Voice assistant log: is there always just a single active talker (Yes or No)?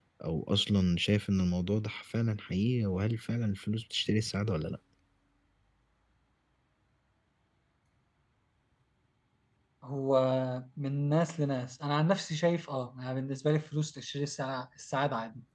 Yes